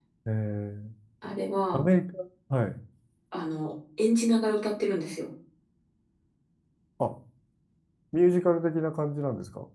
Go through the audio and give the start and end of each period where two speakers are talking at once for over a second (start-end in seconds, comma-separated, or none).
none